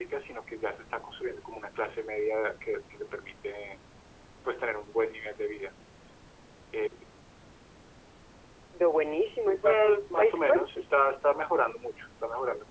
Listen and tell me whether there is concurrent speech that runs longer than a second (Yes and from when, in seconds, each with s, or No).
Yes, from 9.6 s